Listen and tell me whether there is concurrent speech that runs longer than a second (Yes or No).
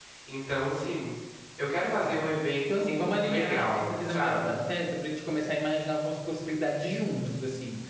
Yes